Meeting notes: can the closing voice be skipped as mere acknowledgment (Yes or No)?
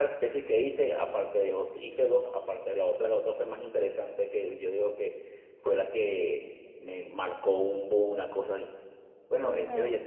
Yes